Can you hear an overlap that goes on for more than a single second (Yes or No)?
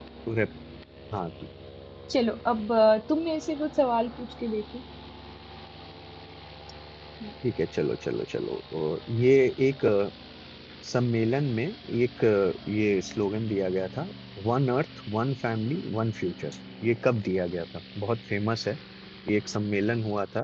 No